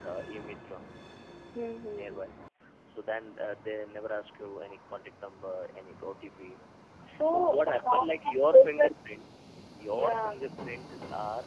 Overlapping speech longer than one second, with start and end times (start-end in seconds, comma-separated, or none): 7.2-8.9